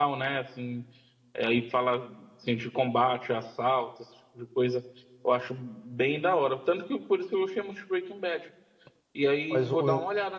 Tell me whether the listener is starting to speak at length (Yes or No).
Yes